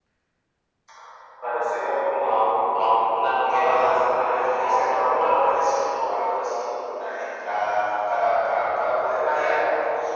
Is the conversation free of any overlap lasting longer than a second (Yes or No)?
No